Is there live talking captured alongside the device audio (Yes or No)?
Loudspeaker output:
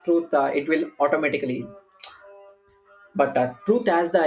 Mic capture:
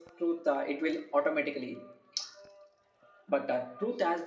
No